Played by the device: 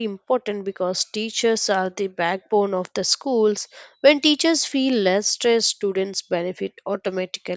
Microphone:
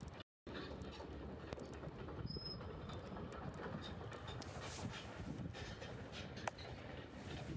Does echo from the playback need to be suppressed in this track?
No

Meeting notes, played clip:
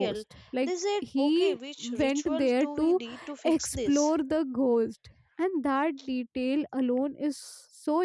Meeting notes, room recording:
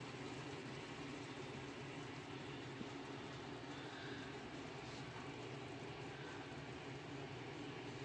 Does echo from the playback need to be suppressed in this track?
No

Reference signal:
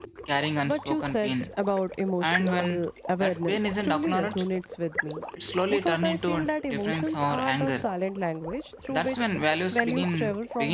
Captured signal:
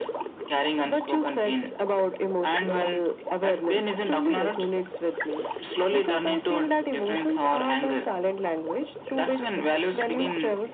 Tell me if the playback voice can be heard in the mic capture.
Yes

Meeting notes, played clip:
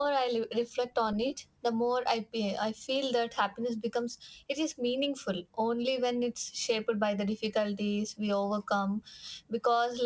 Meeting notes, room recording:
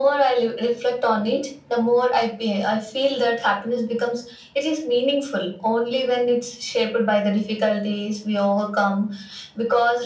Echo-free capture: No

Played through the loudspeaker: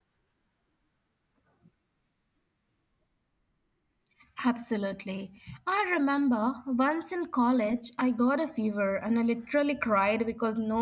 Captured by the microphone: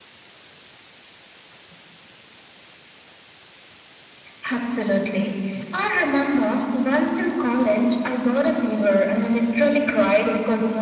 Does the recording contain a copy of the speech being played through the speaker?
Yes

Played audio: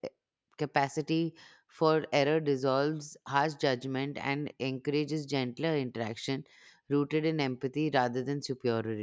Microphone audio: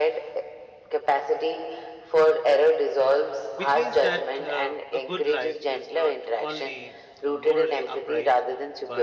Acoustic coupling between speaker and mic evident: Yes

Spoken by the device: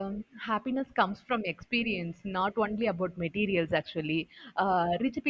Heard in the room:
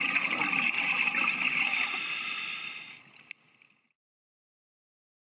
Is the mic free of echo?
Yes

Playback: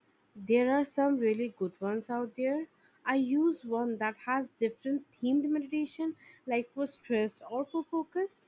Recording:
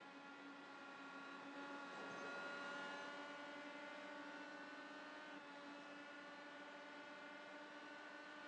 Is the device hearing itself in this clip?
No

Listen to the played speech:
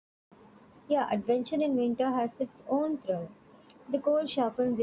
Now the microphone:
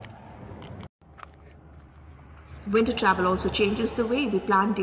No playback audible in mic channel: Yes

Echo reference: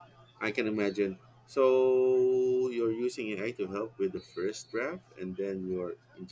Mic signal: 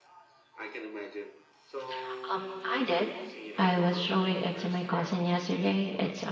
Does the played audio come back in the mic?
Yes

